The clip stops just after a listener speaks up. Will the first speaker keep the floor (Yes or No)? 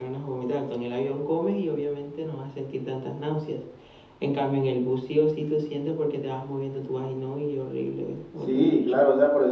No